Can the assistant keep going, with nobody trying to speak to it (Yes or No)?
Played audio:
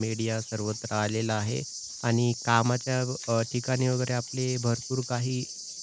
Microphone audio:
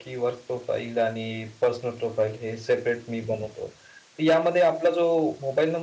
No